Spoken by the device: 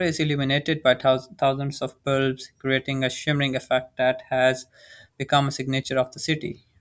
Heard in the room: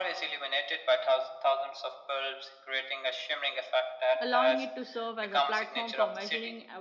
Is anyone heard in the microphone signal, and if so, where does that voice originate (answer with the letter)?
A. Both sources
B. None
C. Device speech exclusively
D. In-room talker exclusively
A